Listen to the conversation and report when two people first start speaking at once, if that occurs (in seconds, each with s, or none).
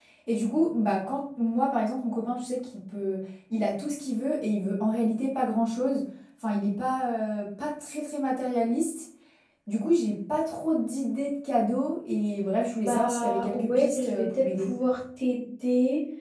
12.8 s